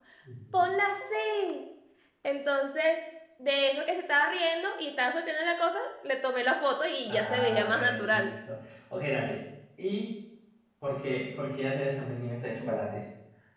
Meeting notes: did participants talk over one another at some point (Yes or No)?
Yes